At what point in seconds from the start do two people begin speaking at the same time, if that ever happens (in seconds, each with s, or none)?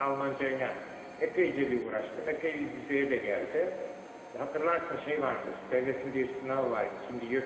none